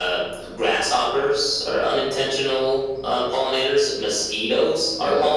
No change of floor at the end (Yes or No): Yes